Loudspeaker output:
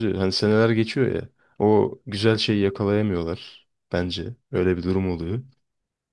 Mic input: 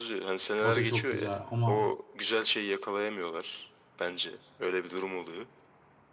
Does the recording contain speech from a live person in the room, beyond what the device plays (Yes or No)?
Yes